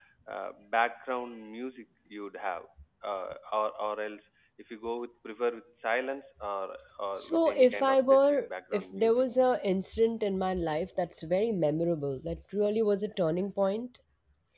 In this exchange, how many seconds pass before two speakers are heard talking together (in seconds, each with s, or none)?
7.2 s